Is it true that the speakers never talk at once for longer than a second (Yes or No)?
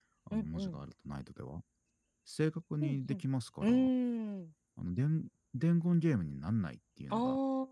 Yes